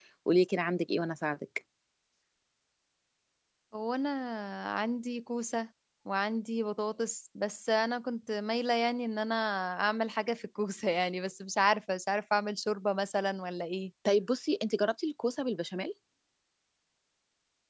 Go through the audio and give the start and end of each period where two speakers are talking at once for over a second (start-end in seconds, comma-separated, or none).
none